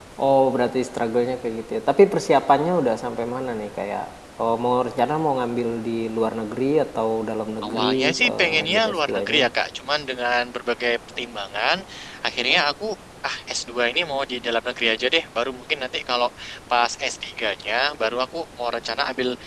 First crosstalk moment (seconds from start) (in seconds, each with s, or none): 7.6 s